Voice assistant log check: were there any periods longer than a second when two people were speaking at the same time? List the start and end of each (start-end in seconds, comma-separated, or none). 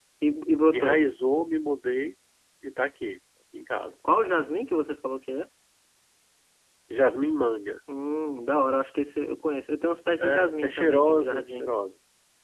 10.2-11.7